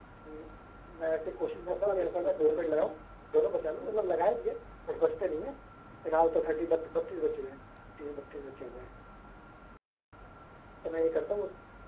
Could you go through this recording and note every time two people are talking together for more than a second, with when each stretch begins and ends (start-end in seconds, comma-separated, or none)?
1.7-2.9